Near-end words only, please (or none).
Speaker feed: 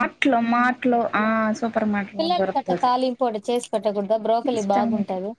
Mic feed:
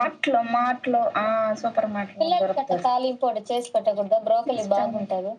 none